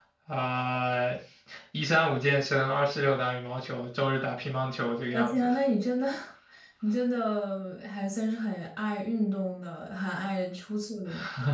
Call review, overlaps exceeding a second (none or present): none